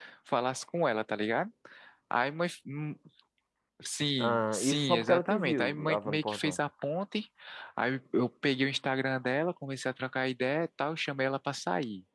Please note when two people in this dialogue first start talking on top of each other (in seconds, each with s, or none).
4.2 s